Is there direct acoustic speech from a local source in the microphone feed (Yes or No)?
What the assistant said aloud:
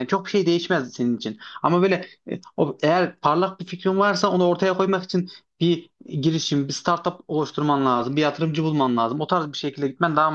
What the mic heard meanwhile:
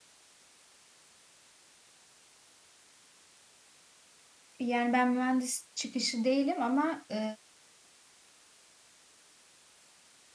Yes